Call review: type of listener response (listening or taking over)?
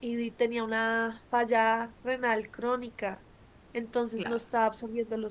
listening